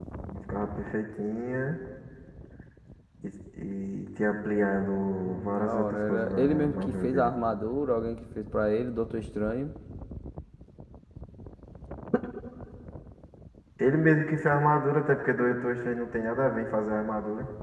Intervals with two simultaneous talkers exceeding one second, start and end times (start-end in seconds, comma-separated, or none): 5.2-7.3